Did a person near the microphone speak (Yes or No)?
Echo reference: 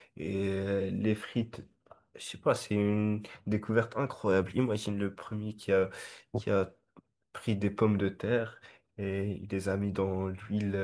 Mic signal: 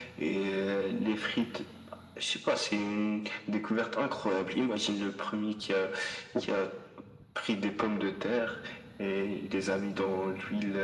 No